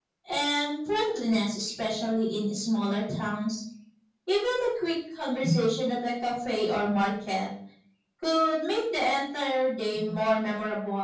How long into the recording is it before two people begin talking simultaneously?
none

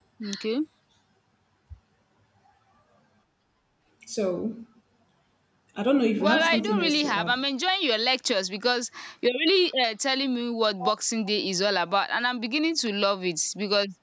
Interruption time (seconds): 6.2 s

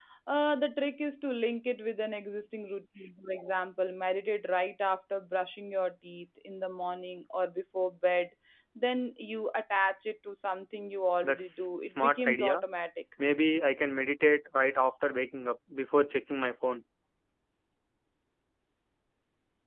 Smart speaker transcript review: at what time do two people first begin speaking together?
11.2 s

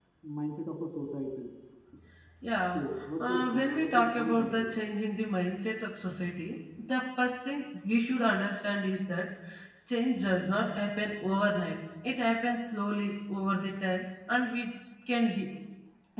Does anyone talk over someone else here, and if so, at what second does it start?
3.2 s

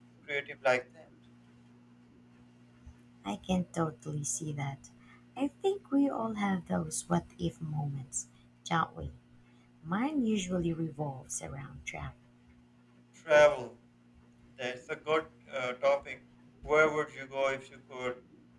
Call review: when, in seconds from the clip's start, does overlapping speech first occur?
none

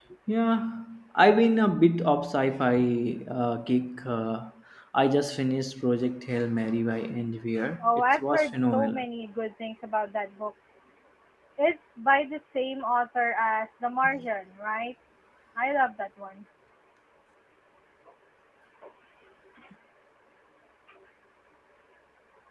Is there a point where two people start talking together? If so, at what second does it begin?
7.8 s

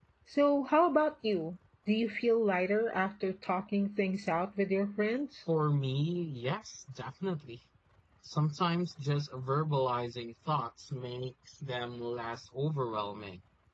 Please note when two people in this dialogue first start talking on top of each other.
none

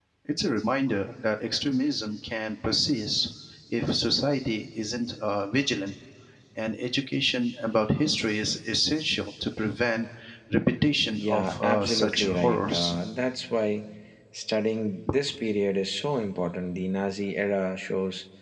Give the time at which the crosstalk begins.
11.2 s

